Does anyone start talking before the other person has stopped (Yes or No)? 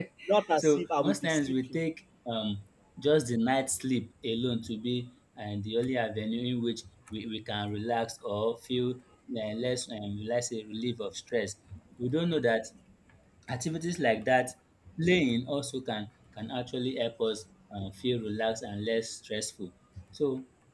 Yes